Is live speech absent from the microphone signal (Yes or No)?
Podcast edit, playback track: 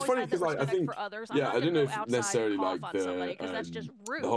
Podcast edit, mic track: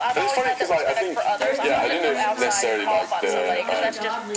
No